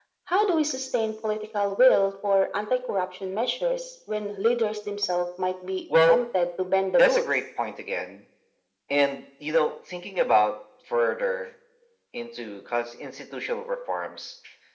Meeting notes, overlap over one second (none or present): none